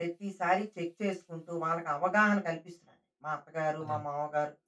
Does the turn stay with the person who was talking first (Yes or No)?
Yes